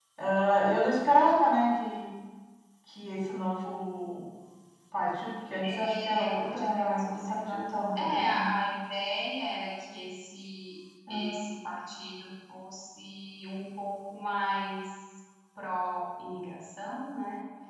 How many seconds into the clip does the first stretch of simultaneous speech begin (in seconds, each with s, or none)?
5.6 s